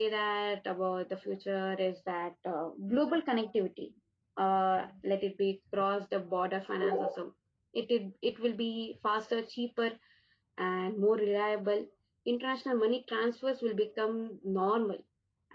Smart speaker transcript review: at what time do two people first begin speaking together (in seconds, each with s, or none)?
none